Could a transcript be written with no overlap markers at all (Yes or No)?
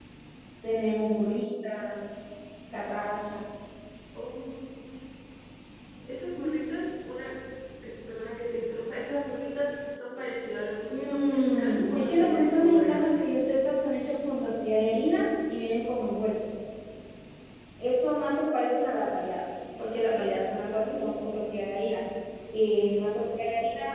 No